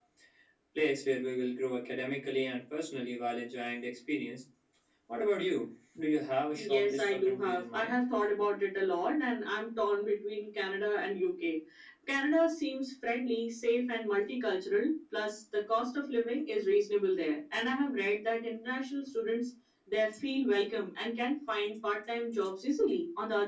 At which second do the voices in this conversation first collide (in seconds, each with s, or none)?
6.6 s